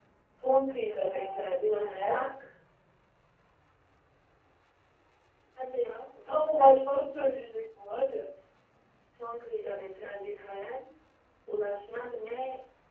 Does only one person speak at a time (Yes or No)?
No